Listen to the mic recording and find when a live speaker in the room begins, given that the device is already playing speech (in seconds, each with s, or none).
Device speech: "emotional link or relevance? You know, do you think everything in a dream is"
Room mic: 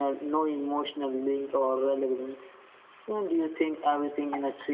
none